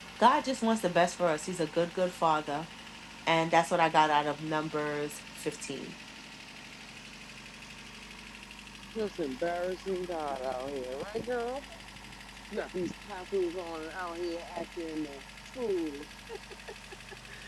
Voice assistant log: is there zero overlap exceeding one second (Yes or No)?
Yes